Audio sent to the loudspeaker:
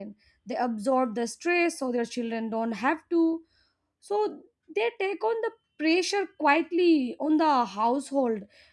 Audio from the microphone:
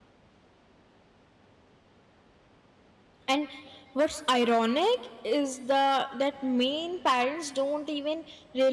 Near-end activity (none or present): present